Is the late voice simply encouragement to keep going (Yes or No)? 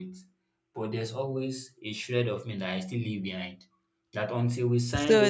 No